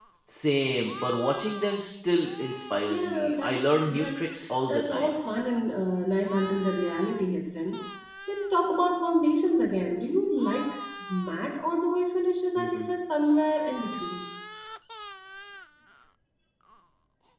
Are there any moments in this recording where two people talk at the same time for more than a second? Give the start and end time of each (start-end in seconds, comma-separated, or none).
2.9-4.2